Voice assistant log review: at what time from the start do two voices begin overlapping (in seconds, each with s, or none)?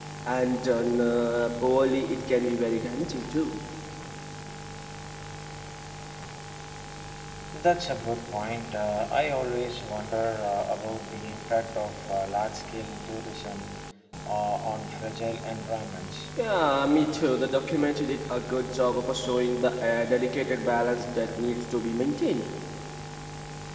none